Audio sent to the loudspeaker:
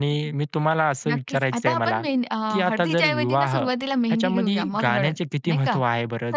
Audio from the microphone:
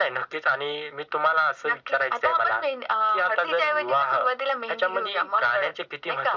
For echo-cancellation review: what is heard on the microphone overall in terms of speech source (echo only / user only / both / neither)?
echo only